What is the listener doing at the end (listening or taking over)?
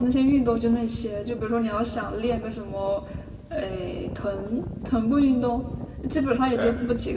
listening